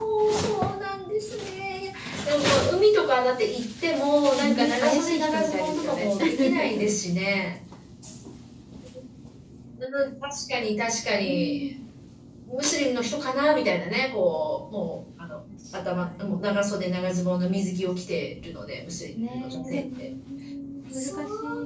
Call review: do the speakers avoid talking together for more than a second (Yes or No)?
No